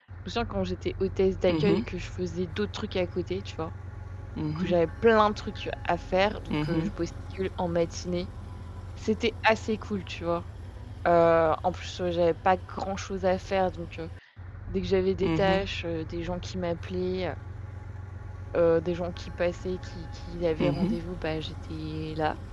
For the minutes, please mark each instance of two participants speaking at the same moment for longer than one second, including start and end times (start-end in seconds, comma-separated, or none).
none